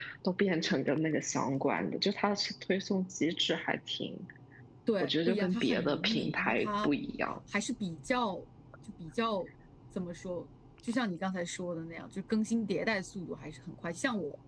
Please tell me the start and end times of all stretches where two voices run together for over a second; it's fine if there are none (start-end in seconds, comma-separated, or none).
5.0-6.9